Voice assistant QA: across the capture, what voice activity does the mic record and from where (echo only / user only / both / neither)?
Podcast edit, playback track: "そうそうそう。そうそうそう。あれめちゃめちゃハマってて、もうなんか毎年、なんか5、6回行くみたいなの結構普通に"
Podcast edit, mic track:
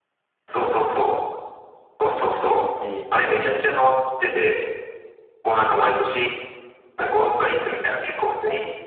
both